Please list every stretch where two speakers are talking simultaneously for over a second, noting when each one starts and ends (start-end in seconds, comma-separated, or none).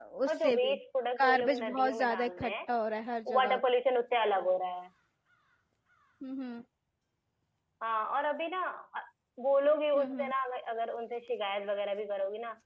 1.2-2.5